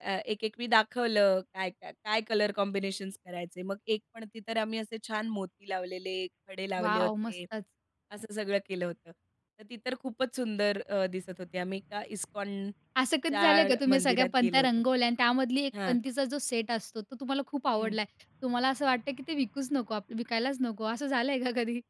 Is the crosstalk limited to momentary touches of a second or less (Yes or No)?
No